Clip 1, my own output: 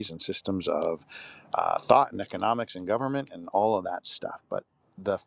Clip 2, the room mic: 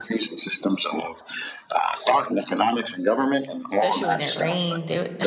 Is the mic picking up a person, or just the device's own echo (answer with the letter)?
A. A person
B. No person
A